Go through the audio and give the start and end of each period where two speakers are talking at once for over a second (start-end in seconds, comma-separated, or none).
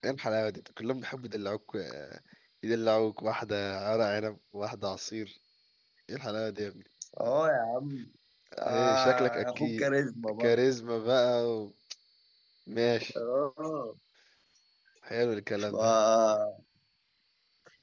8.6-9.9